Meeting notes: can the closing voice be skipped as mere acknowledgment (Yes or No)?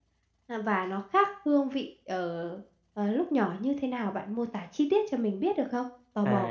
No